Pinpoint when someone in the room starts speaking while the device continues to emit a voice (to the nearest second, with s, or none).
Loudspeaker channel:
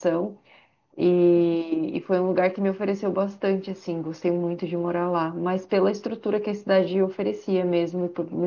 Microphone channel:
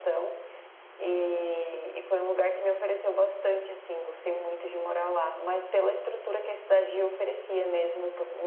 none